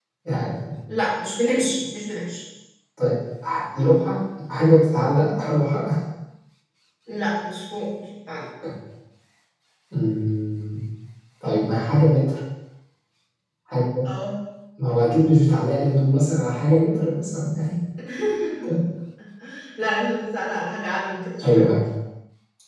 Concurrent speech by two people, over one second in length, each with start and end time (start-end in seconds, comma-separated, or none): none